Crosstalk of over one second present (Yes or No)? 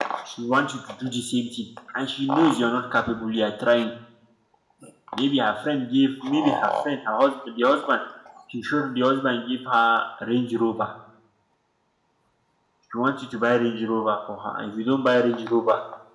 No